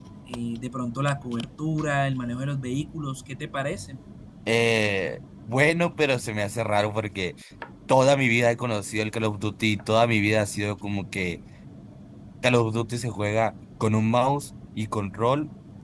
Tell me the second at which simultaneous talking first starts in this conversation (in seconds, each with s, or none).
none